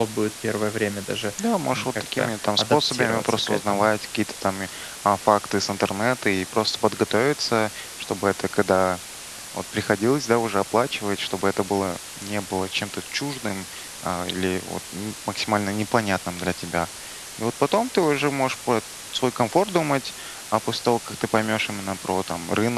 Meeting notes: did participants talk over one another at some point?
Yes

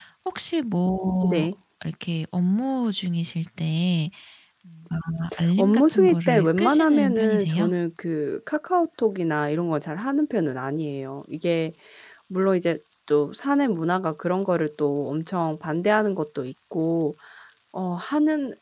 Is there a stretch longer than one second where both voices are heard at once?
Yes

